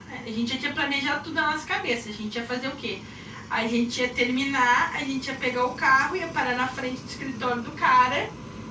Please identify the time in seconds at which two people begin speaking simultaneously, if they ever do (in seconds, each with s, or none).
none